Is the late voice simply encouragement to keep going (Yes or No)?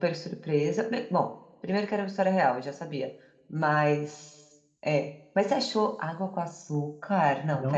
No